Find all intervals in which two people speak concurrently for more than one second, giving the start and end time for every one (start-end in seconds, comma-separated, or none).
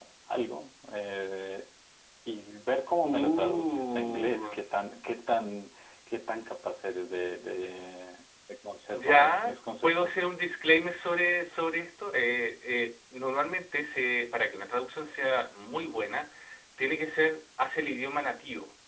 3.0-4.6, 8.9-10.1